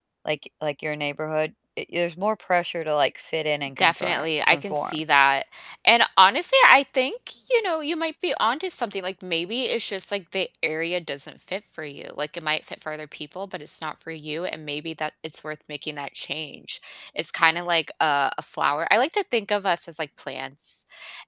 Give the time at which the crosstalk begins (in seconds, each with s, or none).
3.8 s